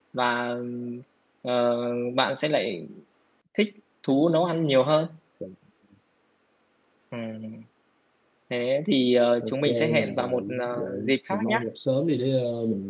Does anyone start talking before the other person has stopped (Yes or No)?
Yes